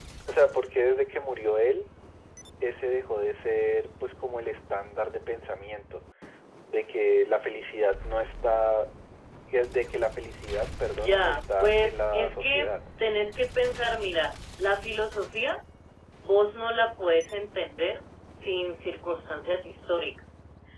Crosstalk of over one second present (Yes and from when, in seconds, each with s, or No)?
Yes, from 10.8 s